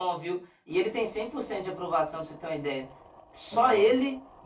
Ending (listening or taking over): listening